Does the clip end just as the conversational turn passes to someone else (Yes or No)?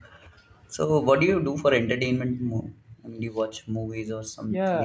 Yes